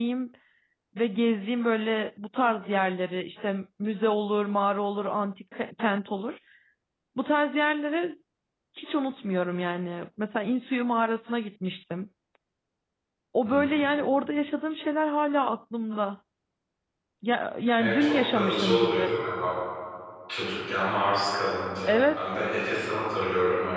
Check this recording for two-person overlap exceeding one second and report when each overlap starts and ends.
17.8-19.1

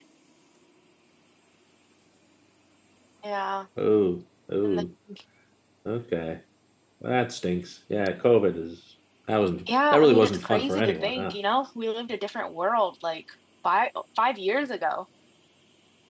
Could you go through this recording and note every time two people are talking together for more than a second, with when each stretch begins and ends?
9.9-11.4

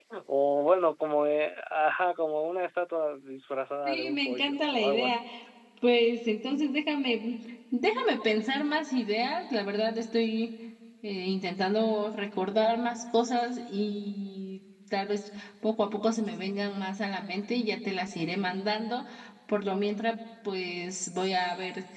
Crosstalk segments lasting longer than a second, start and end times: 3.8-5.2

